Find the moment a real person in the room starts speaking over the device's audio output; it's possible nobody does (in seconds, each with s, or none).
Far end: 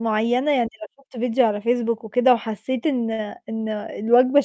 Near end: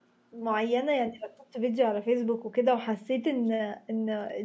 none